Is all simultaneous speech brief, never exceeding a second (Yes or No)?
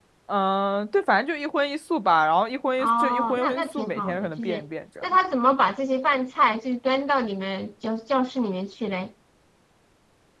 No